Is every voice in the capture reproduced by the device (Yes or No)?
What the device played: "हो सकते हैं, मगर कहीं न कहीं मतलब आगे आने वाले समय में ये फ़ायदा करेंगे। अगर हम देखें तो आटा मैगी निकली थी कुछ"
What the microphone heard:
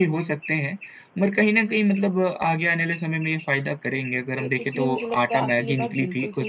No